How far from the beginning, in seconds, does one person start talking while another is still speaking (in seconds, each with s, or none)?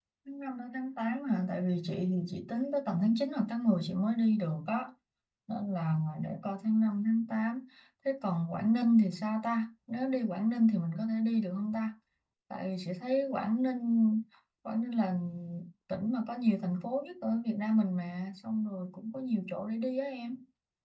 none